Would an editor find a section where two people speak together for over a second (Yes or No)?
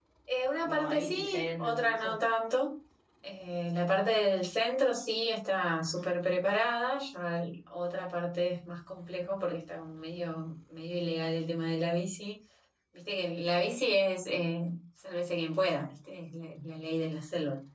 Yes